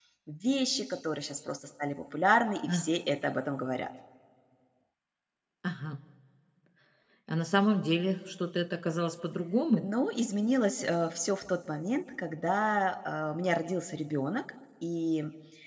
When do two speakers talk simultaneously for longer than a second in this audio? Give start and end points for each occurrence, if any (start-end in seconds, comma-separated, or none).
none